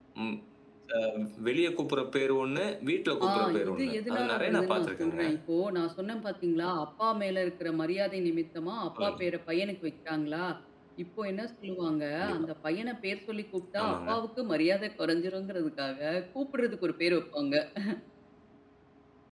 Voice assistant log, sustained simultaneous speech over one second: present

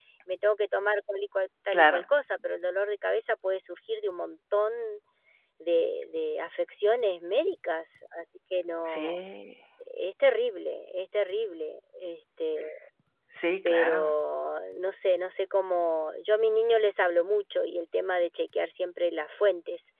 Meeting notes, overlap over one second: none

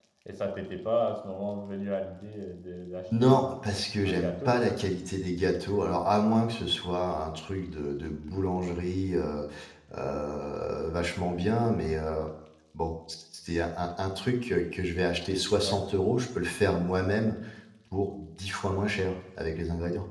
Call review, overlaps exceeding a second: none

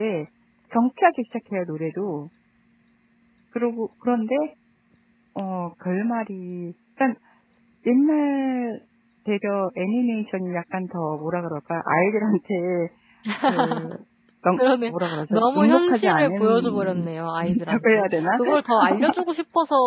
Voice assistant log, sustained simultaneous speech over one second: present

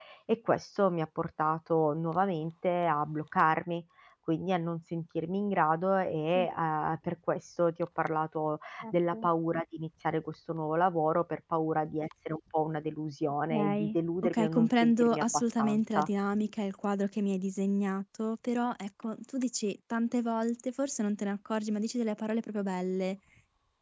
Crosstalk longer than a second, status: present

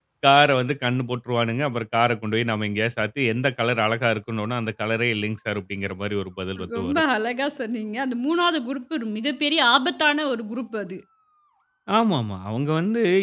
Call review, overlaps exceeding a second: none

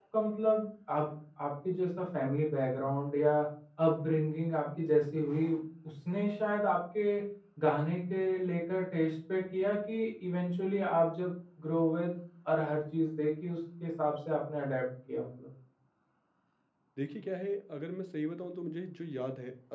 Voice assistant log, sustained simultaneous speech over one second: none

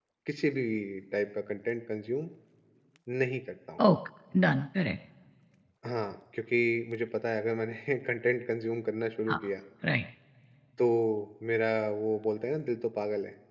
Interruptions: none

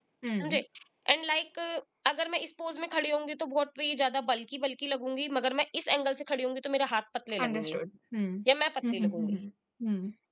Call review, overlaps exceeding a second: none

